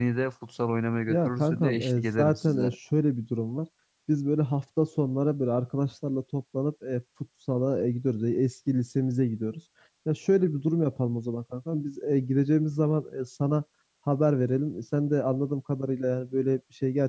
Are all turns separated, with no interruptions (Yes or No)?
No